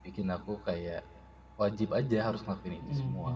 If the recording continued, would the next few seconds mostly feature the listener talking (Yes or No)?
Yes